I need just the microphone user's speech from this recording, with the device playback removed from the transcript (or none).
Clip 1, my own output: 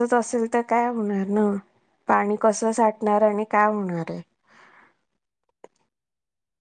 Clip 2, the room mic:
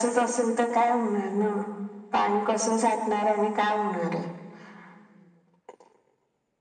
none